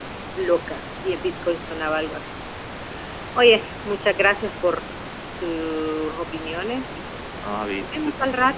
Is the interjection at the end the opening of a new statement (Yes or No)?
Yes